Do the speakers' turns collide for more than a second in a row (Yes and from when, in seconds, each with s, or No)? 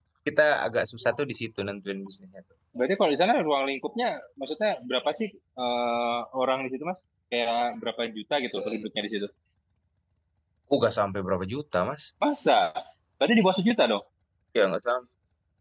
No